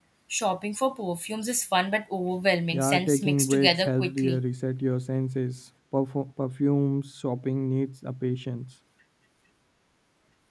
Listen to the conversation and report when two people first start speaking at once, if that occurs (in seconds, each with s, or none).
2.7 s